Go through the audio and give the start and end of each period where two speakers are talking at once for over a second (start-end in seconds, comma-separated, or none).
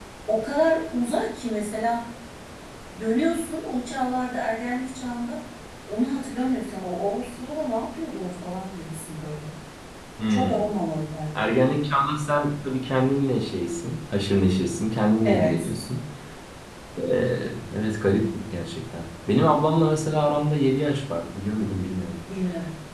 none